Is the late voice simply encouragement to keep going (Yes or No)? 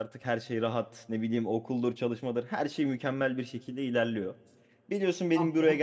Yes